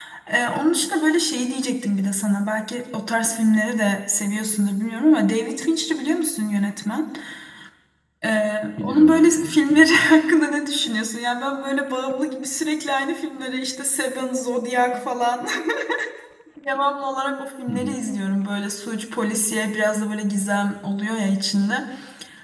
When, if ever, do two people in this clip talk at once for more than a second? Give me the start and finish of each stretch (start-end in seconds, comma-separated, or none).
8.8-10.1